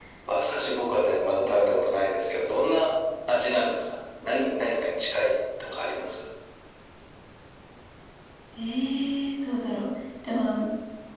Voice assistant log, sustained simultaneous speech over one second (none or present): none